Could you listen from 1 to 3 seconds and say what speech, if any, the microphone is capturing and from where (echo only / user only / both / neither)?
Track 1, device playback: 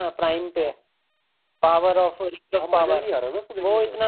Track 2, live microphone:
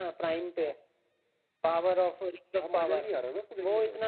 echo only